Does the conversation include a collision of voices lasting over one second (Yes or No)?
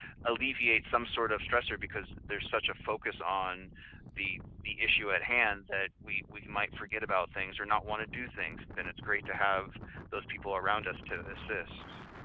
No